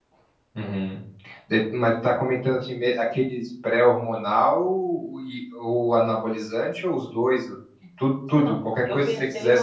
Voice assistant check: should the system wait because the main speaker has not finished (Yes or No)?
No